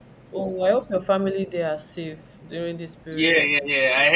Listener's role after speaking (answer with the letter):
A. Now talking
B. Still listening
A